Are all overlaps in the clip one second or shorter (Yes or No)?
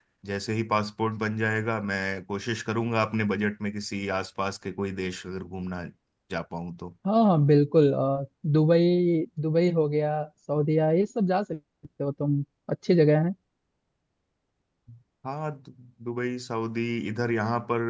Yes